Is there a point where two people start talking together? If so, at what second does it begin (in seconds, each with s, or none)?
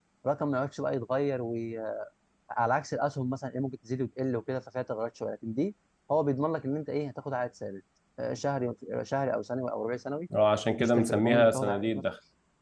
10.8 s